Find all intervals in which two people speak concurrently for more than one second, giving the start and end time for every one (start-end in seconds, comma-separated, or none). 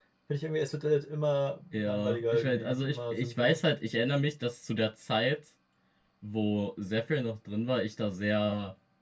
1.7-3.6